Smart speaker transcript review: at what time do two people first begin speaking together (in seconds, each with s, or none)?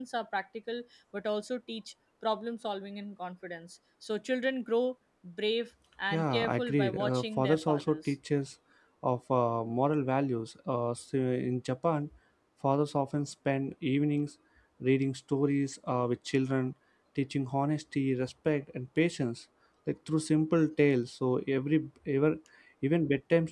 6.1 s